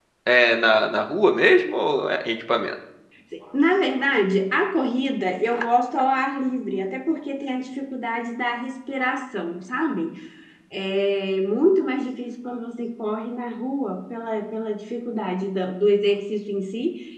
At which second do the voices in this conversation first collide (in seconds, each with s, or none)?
none